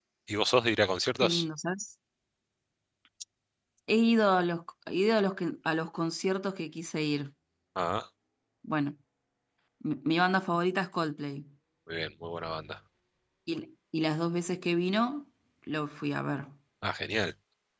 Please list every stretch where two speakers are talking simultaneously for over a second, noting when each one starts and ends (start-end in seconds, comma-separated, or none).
none